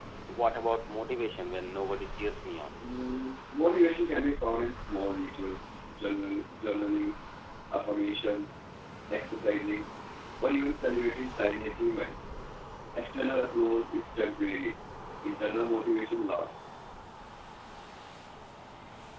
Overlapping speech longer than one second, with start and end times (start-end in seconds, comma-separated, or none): none